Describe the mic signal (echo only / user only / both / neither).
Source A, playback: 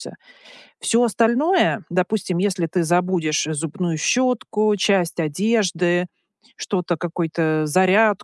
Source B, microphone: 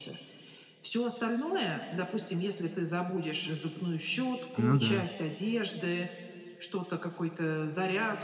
both